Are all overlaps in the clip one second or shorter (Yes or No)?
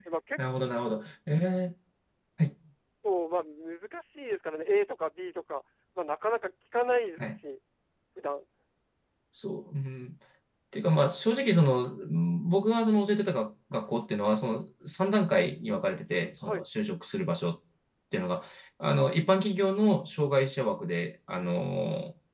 Yes